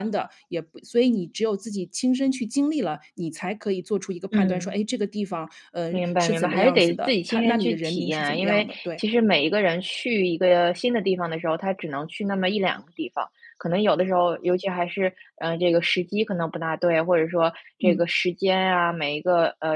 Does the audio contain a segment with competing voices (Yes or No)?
Yes